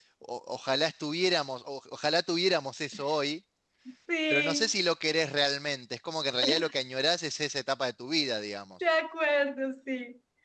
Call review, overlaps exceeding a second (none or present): none